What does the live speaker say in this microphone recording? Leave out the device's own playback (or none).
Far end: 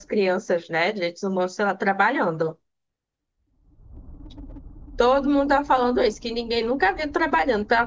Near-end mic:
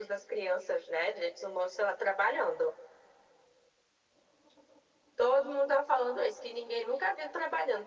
none